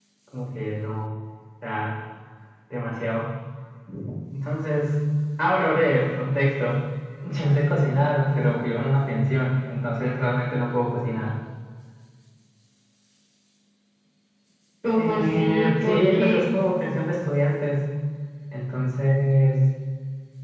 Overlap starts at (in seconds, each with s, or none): 14.9 s